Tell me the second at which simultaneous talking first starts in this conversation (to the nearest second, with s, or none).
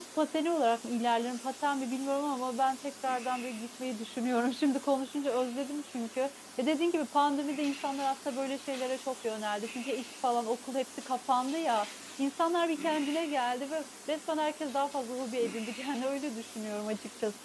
none